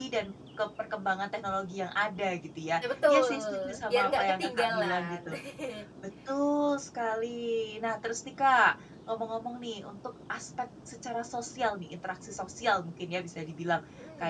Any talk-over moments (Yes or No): Yes